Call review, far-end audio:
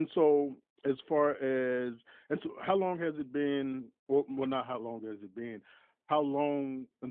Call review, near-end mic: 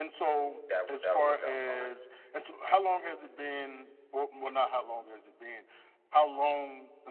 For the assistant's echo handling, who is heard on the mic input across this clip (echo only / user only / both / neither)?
both